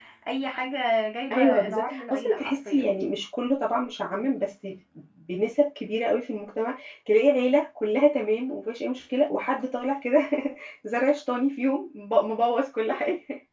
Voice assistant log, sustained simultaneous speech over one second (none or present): present